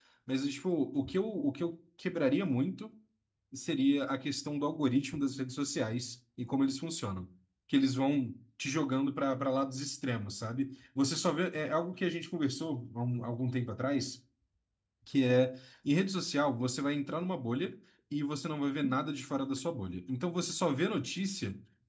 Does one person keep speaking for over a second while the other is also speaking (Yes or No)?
No